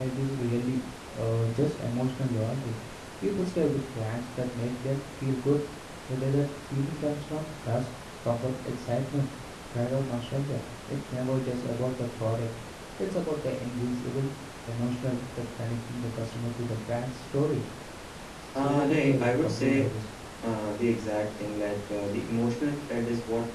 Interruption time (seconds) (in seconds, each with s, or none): 18.6 s